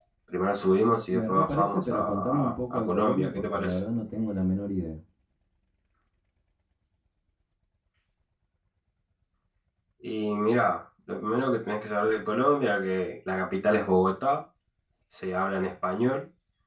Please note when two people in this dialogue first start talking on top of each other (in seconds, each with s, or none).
1.1 s